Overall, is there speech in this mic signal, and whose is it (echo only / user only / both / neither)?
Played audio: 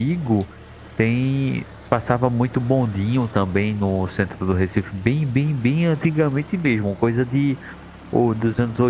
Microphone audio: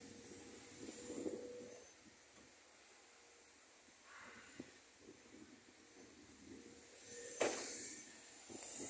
neither